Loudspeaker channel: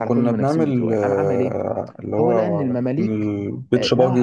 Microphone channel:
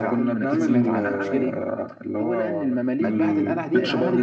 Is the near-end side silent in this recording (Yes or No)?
No